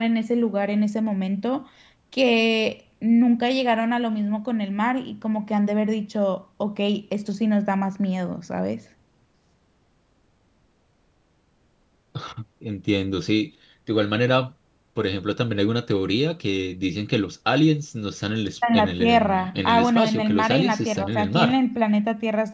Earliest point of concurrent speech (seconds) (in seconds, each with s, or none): 18.6 s